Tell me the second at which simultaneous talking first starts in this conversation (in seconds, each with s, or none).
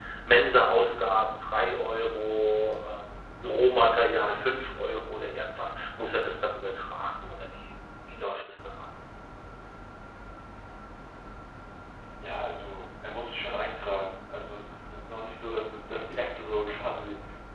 none